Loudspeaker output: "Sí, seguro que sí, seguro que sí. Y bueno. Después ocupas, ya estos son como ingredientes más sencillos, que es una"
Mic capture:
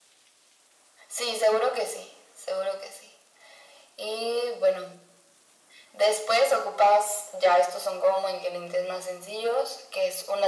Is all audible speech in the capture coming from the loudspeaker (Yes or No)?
Yes